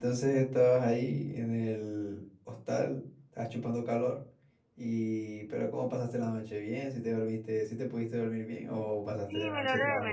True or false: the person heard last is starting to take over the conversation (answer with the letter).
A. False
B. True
B